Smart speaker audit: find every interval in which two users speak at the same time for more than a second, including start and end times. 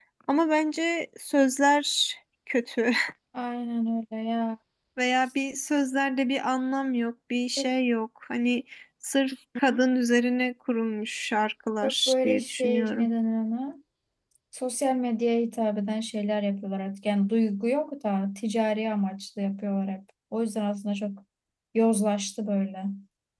11.8-13.1

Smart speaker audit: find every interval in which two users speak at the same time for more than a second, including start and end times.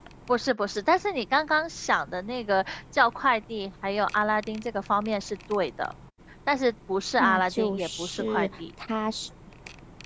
7.2-8.5

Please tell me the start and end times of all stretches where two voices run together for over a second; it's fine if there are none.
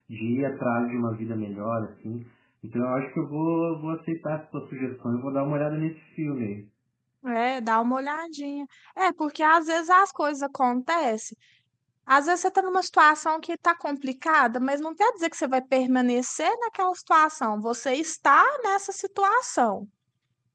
none

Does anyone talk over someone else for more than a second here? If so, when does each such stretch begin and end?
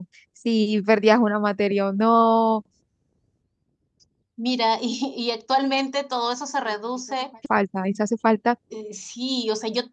none

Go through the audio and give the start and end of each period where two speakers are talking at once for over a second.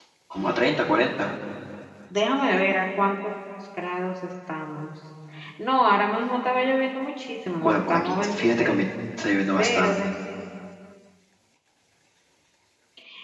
7.6-8.8

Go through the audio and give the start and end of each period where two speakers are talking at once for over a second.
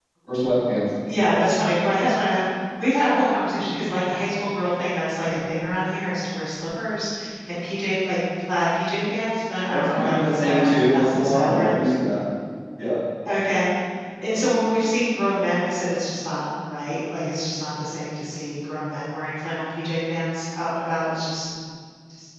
9.7-11.7

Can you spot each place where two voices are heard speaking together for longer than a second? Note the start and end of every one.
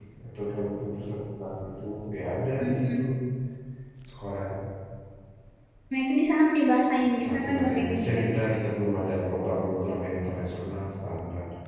7.3-8.5

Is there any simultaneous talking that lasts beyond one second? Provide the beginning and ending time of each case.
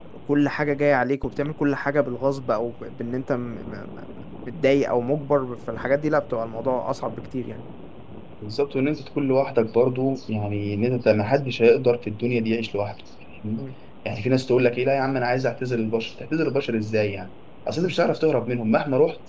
none

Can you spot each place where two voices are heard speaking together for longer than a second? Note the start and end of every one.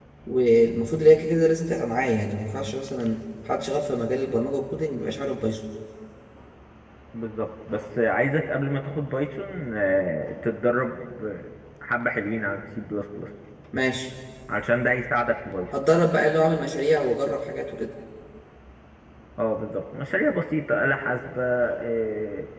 none

